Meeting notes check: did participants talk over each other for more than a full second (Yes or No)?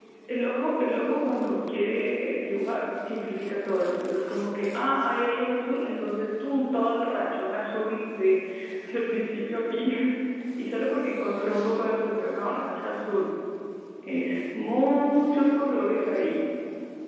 Yes